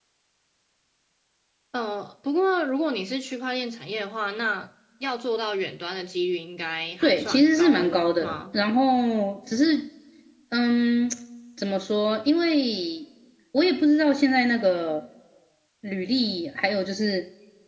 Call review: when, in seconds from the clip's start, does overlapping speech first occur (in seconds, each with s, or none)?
7.0 s